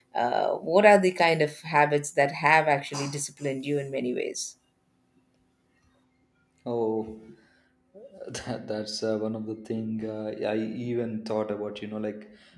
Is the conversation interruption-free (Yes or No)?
Yes